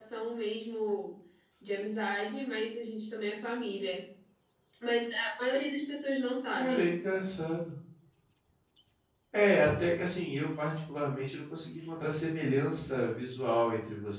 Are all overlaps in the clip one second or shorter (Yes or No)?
Yes